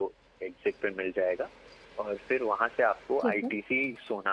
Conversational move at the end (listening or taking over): listening